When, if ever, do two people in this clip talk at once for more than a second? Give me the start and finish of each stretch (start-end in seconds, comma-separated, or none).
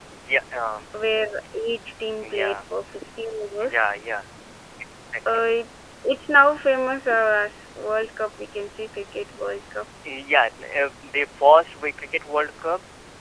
none